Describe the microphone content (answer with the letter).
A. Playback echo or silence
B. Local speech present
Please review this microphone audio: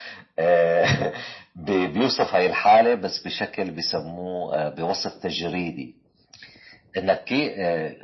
A